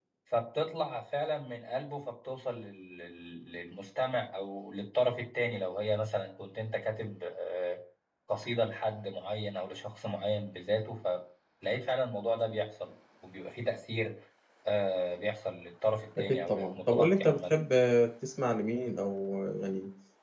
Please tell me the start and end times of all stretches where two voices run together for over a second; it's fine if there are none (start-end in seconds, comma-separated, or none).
16.2-17.4